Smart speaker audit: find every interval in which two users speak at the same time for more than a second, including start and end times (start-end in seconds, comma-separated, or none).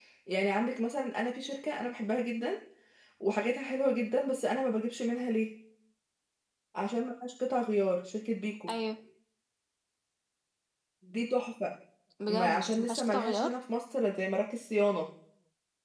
12.3-13.5